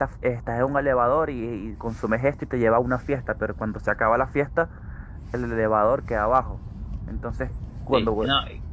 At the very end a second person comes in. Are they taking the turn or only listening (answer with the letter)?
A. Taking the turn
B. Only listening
A